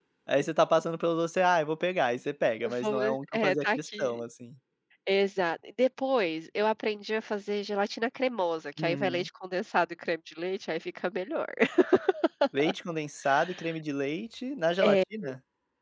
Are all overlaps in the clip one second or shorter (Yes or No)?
No